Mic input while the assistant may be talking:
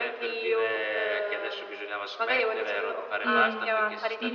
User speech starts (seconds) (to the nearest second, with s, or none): 3 s